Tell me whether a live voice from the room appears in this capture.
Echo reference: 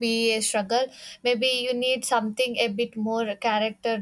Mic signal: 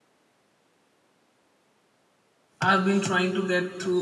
Yes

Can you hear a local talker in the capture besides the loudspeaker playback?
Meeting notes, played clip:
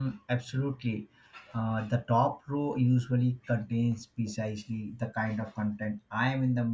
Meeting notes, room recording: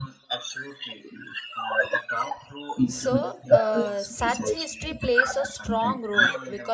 Yes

